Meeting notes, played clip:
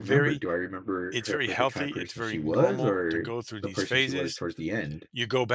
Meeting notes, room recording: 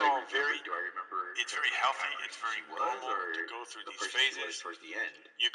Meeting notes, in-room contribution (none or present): none